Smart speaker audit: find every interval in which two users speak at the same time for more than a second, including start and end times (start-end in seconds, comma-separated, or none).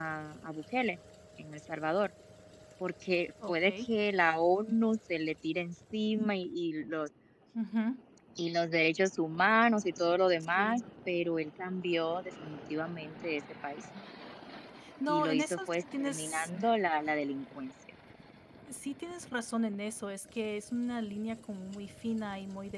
15.1-16.5